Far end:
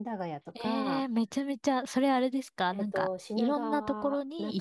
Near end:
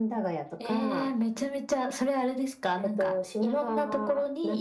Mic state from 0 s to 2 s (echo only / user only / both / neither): echo only